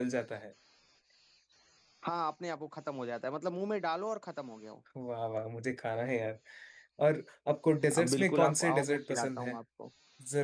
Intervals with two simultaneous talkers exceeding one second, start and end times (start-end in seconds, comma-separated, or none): 8.0-9.6